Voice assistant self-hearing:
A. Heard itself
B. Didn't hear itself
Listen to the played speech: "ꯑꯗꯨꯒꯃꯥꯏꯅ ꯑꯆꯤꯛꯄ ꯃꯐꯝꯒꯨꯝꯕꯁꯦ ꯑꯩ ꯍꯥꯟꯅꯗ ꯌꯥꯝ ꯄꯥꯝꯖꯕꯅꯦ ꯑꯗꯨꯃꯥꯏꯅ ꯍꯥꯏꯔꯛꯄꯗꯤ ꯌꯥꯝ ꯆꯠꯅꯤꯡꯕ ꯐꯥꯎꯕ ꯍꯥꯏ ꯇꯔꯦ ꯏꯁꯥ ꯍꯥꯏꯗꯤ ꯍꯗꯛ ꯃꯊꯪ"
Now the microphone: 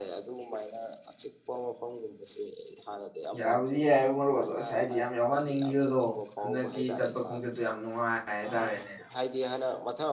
A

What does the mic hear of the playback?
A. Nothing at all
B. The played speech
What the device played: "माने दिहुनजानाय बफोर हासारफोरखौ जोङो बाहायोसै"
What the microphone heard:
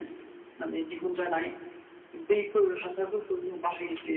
B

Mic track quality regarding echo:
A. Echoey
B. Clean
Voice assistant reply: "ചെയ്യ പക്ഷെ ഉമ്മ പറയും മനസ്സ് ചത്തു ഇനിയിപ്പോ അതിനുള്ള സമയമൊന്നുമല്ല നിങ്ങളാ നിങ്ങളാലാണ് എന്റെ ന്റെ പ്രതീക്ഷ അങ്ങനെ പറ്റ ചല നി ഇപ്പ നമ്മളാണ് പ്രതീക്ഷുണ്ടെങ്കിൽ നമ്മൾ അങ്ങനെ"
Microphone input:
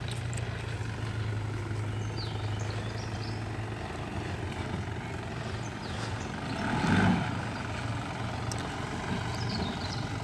B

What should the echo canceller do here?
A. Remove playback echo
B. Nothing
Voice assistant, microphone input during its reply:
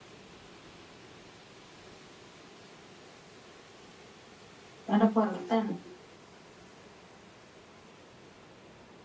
B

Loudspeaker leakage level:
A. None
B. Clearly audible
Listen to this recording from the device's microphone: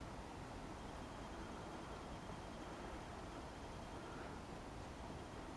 A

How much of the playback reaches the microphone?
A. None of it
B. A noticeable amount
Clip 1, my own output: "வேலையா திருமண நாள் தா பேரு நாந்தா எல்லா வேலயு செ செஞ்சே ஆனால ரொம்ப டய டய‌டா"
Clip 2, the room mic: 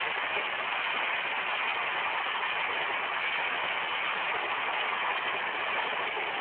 A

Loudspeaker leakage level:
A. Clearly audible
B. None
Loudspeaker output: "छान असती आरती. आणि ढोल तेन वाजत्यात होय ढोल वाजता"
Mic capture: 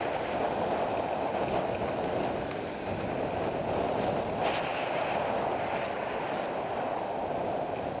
B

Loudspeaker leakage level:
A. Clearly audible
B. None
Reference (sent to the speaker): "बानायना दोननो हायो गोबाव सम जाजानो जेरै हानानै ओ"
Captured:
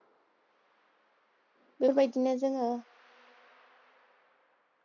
B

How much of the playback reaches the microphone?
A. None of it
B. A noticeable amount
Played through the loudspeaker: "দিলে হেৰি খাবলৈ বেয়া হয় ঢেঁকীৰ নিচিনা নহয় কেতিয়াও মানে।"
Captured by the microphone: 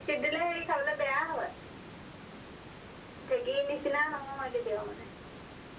B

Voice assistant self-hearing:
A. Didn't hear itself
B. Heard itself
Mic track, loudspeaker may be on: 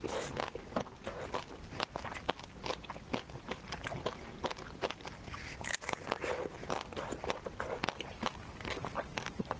A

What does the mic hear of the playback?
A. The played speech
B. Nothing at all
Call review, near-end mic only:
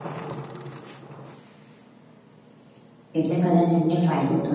B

